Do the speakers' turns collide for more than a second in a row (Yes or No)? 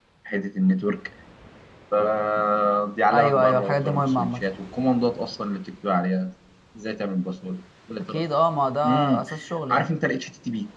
Yes